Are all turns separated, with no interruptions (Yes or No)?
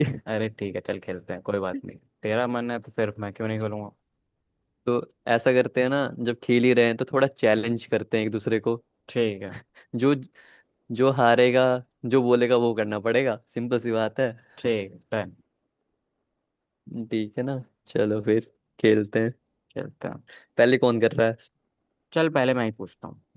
Yes